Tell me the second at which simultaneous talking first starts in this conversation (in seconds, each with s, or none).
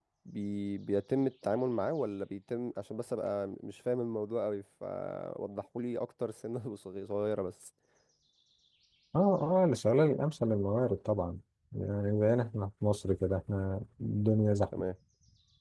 none